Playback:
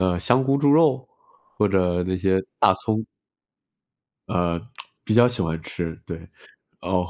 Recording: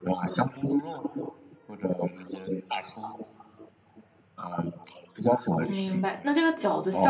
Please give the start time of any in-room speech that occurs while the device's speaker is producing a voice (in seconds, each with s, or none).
5.7 s